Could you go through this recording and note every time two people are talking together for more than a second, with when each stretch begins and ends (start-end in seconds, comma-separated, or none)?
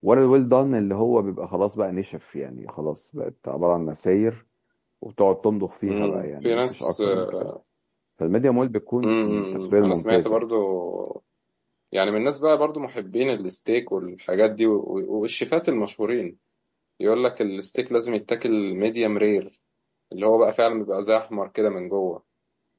5.9-7.4, 9.0-10.4